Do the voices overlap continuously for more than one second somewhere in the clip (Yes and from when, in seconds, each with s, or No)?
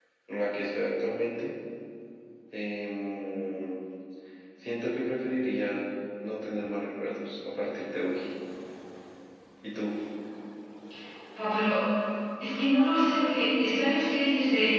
No